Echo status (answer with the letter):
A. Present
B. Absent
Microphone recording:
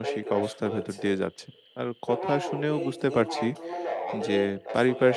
A